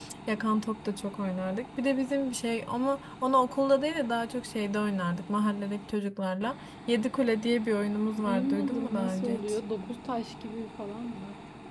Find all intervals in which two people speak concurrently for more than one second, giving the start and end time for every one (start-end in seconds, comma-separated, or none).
8.2-9.6